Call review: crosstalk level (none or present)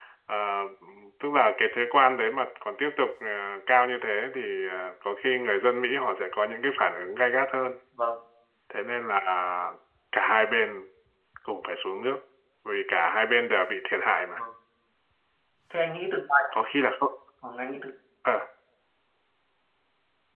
none